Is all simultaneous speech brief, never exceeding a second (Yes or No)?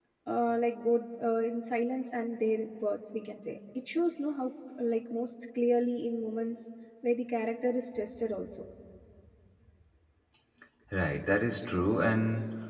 Yes